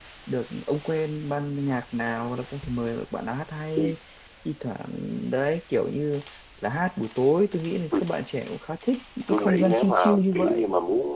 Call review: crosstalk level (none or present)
present